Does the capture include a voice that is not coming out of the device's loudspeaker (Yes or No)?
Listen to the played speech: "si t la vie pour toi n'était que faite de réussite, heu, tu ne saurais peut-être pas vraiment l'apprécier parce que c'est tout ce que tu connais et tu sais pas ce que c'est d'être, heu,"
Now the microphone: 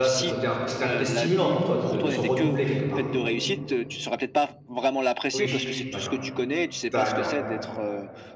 Yes